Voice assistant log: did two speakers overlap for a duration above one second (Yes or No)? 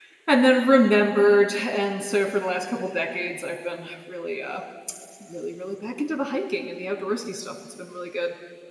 No